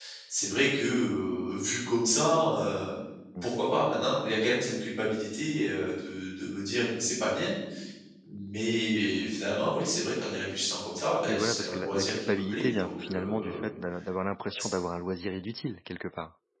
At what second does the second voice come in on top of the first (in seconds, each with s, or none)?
11.3 s